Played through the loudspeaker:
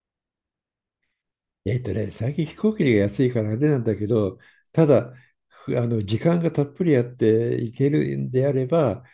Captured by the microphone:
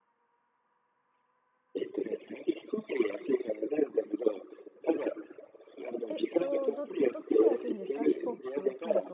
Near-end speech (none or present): present